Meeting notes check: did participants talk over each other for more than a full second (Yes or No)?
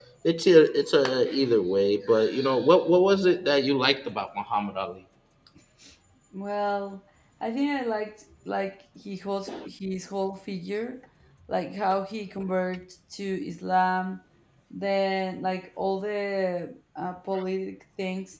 No